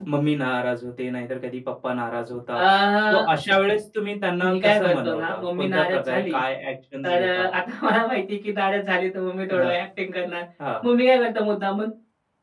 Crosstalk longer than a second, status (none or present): present